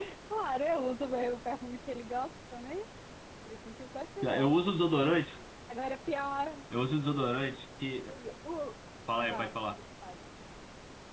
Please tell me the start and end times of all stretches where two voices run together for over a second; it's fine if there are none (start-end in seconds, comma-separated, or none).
none